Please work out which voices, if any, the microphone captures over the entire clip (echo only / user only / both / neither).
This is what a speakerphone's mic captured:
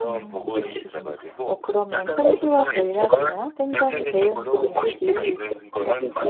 both